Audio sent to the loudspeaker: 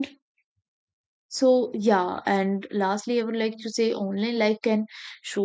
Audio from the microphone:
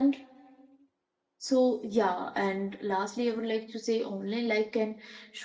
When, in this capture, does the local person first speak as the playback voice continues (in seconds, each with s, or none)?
none